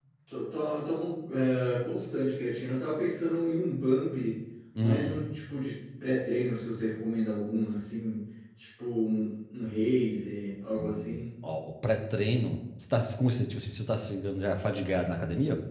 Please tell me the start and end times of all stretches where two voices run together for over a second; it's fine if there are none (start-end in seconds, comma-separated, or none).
none